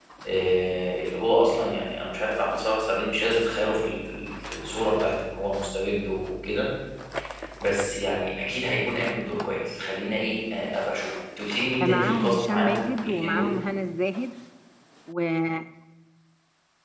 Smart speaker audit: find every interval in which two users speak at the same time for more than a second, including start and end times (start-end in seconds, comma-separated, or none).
11.8-13.5